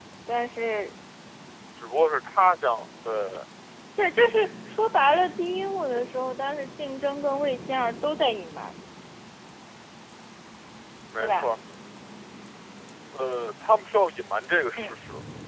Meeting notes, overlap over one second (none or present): none